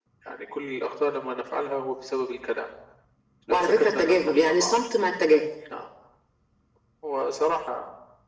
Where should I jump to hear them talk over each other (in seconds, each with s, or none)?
3.5 s